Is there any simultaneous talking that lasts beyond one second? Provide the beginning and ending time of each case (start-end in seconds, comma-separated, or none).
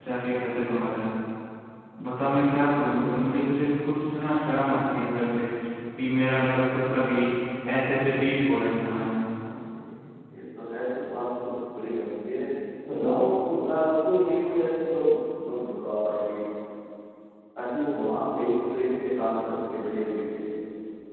none